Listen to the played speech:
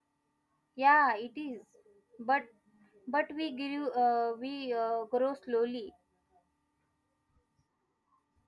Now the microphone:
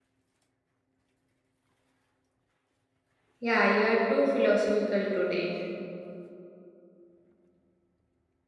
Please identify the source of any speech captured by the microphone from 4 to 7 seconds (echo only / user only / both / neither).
user only